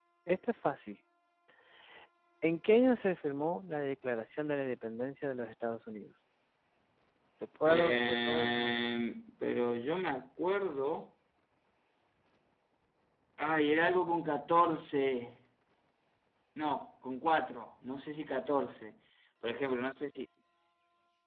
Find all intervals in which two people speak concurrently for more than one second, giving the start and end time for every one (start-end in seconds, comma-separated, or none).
7.7-8.9